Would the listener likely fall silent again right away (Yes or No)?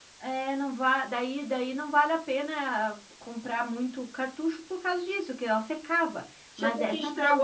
No